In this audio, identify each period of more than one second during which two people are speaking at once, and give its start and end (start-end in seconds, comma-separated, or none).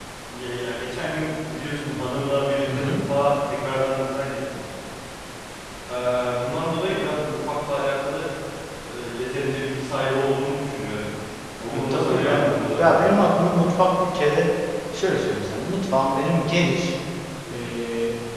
11.7-13.0